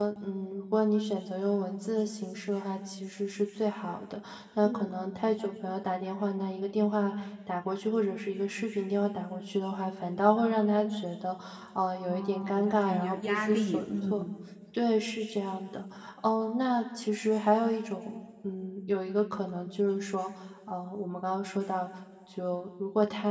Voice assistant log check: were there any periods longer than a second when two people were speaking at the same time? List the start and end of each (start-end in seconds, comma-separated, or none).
12.1-14.2